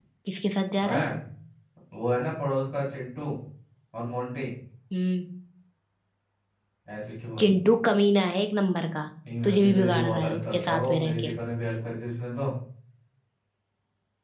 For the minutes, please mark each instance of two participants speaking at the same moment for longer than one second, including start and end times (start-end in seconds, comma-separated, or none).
9.4-11.3